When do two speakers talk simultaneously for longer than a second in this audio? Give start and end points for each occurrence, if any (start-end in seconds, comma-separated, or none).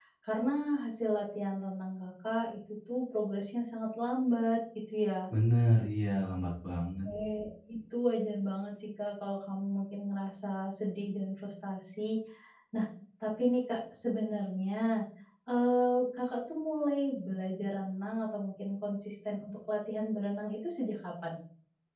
none